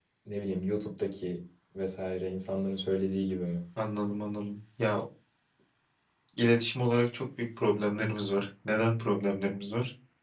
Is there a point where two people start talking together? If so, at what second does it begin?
none

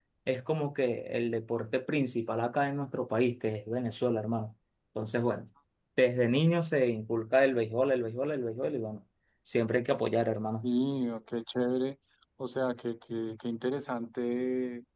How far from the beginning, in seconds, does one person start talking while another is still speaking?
none

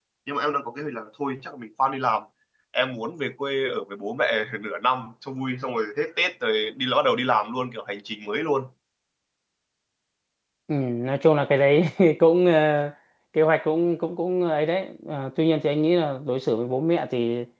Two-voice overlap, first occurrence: none

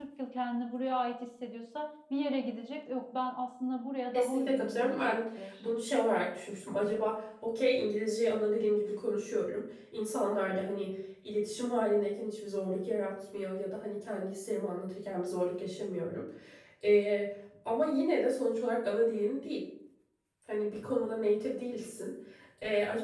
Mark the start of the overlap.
4.1 s

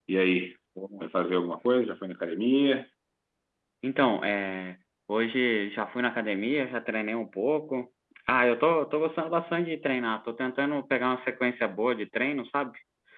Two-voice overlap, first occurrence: none

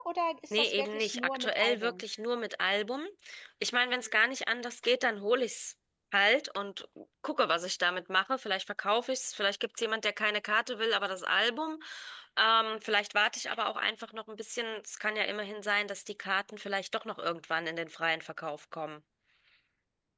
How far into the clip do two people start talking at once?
0.5 s

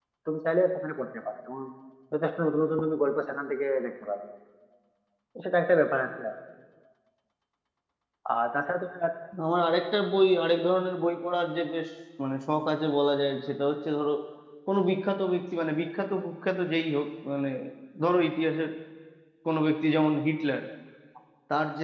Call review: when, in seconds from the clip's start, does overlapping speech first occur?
none

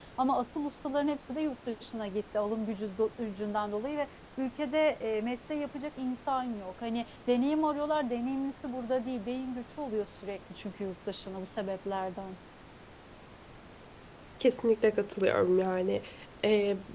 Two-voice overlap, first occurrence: none

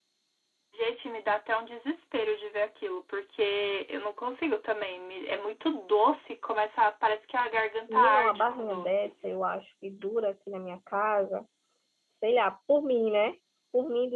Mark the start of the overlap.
7.9 s

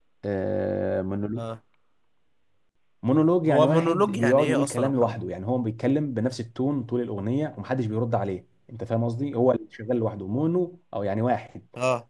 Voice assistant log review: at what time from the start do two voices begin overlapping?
3.5 s

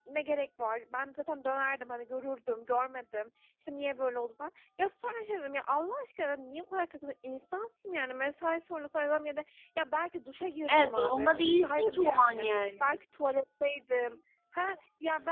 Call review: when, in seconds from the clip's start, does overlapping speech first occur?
10.7 s

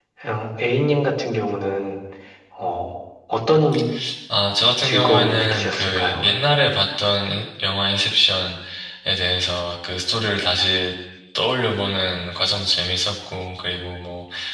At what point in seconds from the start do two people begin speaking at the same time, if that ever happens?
4.8 s

